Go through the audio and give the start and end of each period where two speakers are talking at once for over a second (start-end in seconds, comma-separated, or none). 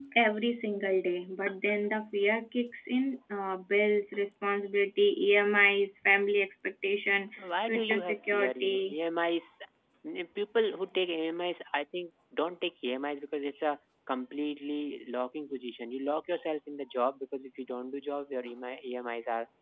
7.7-9.0